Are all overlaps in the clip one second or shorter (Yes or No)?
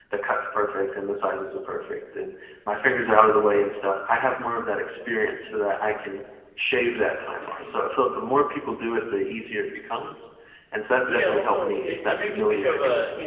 No